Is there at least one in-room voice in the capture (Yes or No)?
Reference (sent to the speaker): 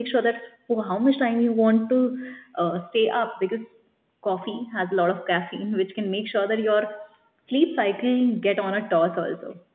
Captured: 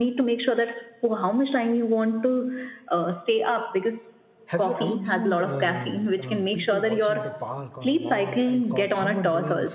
Yes